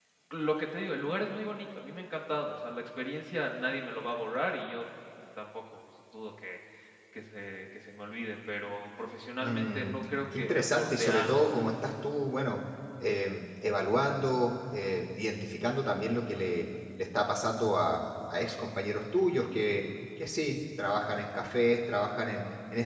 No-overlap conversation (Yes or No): No